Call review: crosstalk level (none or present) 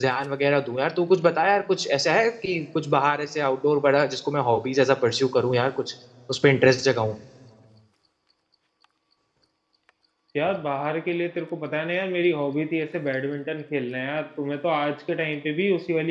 none